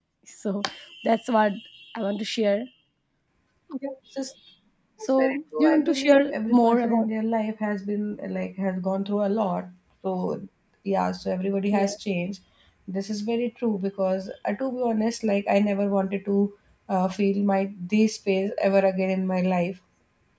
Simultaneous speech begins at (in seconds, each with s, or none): 5.2 s